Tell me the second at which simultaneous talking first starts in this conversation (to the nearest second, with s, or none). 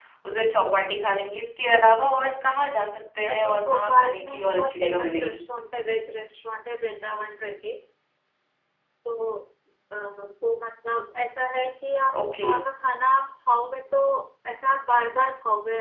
3 s